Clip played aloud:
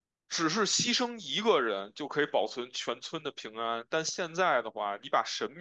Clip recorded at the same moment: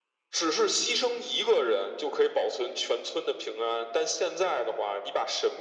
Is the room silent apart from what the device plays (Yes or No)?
Yes